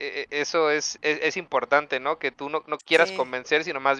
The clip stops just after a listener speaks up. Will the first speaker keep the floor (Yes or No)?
Yes